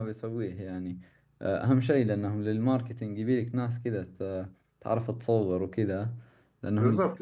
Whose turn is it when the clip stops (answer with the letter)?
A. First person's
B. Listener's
B